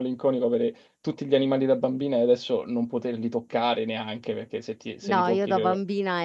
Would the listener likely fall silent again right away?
No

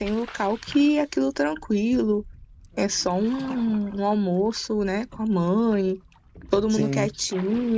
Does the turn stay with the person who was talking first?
Yes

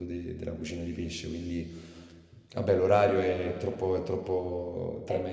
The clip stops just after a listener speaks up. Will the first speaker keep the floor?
Yes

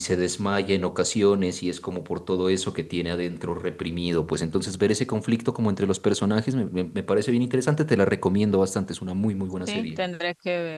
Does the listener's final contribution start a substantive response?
Yes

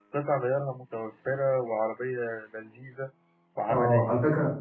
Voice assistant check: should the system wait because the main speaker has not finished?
No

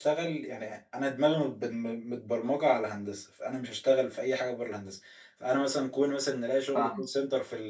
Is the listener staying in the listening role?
Yes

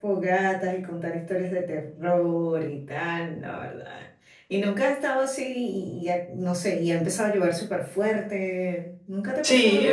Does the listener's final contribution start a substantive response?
Yes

